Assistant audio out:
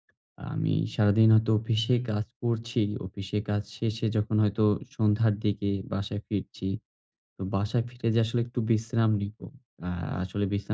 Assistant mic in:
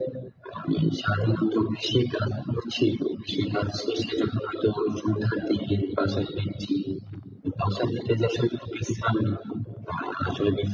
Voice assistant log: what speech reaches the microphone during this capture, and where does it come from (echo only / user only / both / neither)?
echo only